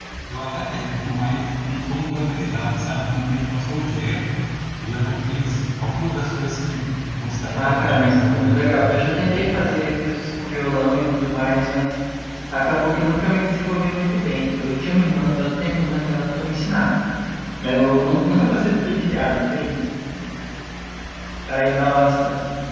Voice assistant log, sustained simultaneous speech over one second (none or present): present